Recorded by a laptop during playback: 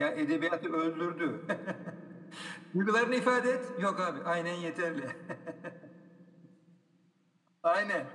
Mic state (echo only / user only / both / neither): echo only